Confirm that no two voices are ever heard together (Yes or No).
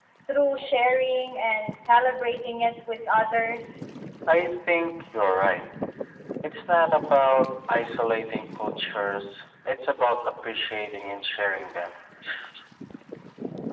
Yes